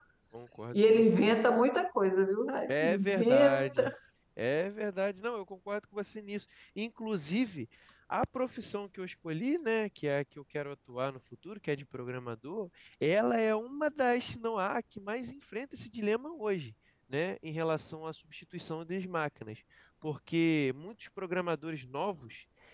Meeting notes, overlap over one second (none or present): present